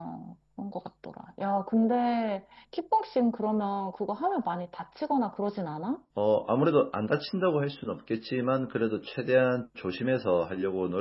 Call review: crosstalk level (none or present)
none